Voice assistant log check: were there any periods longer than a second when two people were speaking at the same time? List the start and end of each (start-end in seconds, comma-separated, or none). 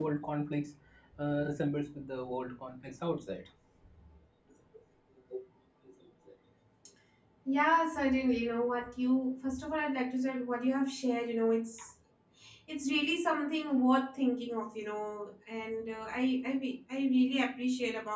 none